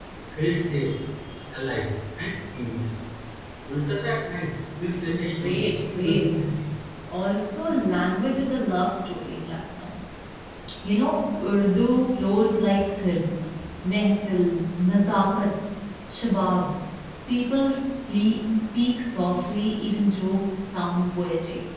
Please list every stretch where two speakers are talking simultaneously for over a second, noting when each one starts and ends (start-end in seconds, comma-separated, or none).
5.1-6.3